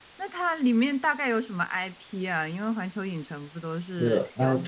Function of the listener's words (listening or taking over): taking over